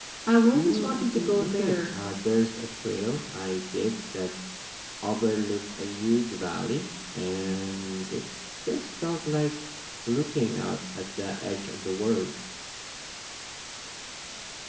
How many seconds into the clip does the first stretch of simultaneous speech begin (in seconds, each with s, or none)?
0.5 s